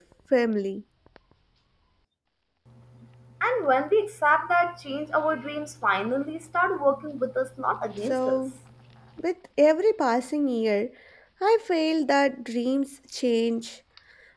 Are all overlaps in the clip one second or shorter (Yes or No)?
Yes